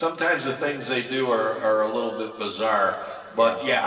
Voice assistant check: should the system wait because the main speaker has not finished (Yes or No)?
Yes